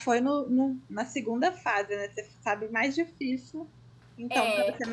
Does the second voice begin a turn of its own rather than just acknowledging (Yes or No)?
No